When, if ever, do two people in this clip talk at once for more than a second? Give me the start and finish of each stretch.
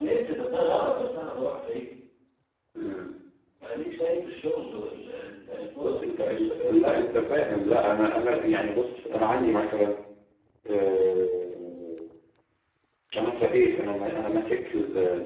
5.8-7.3

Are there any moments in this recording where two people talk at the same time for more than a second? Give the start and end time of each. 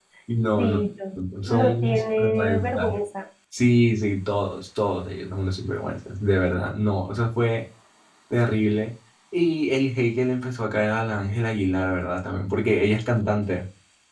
1.5-2.9

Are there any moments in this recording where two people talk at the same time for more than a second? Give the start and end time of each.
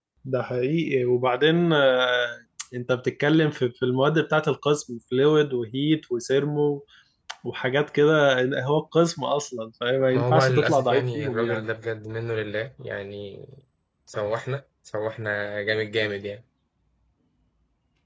10.1-11.6

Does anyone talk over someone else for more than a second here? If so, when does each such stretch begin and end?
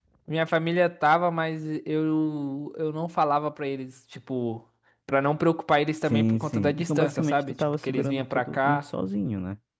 6.0-8.8

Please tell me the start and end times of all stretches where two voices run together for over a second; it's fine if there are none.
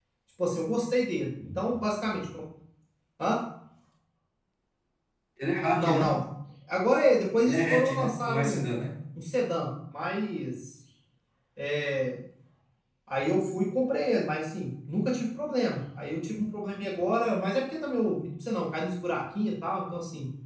7.4-8.7

